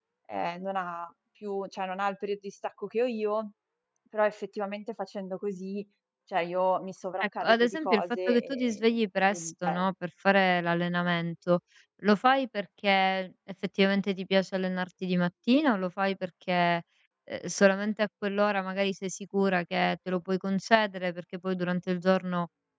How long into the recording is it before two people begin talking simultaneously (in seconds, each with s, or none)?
7.2 s